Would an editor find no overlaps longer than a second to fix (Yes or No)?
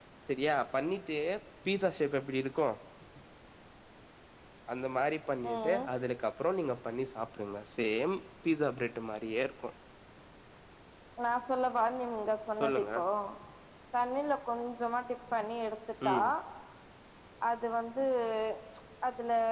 Yes